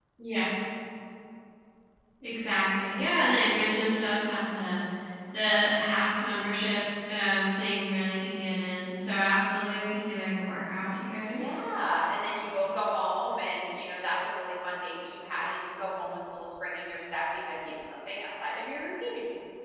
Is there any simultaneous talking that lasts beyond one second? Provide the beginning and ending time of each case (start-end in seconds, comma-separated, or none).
none